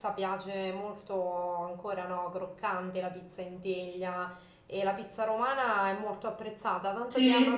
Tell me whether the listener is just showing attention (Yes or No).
Yes